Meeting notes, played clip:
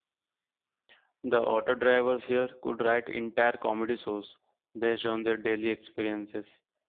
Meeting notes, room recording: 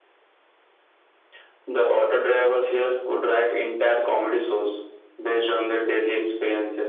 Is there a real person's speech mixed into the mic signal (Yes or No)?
No